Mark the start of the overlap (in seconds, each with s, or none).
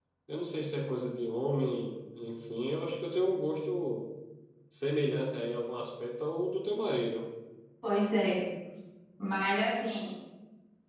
none